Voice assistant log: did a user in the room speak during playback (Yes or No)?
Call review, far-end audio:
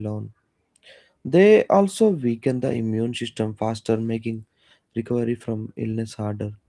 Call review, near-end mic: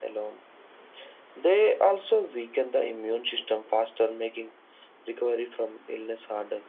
No